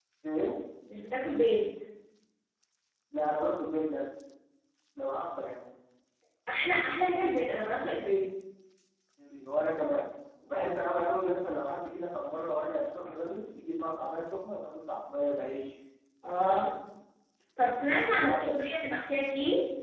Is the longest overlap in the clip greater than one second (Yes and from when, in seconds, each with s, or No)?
No